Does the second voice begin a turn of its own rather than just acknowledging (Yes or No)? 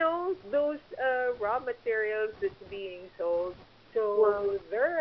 No